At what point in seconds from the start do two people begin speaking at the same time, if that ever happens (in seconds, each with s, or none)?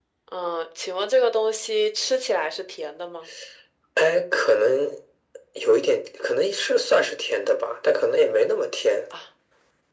none